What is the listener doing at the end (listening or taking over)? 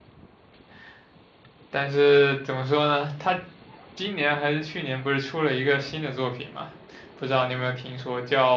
listening